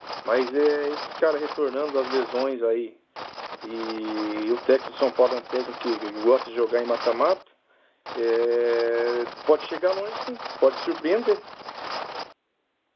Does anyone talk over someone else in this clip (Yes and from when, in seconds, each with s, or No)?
No